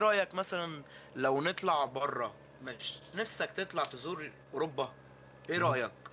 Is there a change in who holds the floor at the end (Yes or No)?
Yes